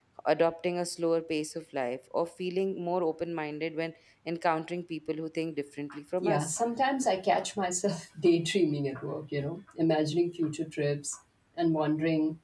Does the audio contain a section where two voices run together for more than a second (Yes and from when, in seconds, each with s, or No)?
No